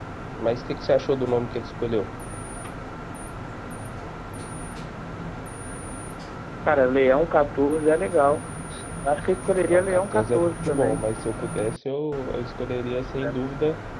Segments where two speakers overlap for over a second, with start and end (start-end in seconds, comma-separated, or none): 9.6-11.0